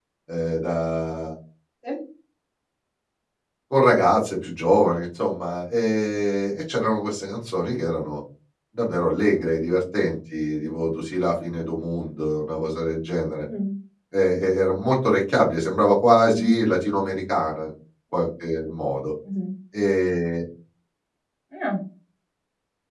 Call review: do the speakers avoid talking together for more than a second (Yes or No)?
Yes